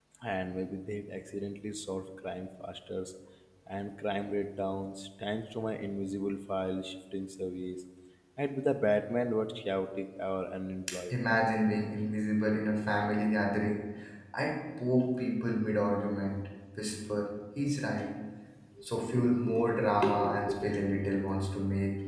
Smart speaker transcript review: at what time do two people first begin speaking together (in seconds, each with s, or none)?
none